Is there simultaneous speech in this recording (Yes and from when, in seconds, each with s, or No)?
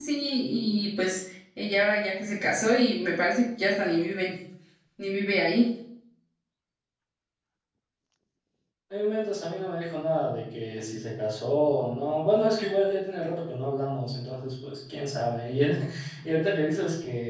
No